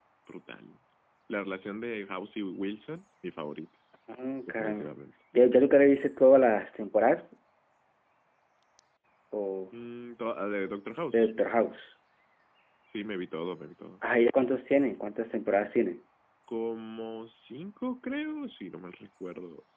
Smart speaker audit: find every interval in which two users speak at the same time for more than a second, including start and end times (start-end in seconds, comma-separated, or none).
none